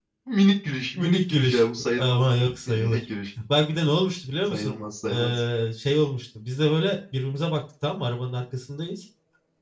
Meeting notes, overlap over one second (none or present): present